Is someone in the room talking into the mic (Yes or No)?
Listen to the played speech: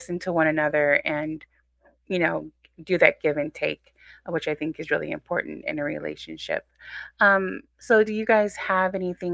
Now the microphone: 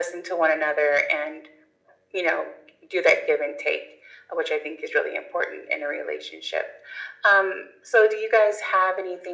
No